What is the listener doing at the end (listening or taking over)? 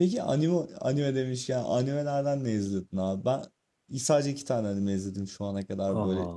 listening